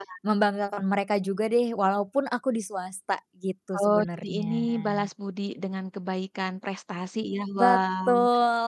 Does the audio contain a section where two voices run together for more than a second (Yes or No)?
Yes